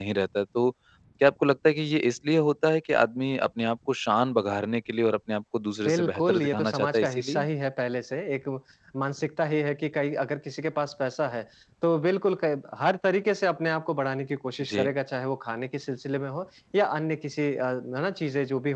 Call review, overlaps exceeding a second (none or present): present